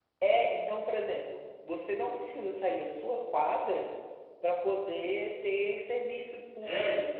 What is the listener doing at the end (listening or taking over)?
taking over